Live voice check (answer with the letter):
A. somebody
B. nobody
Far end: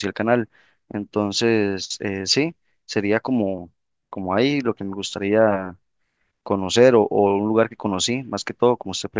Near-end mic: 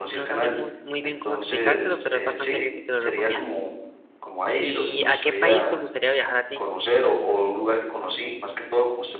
A